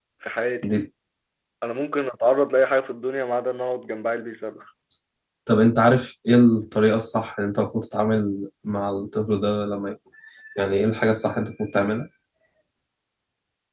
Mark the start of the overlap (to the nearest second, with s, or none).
none